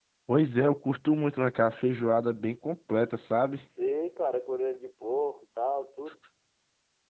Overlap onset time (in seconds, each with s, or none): none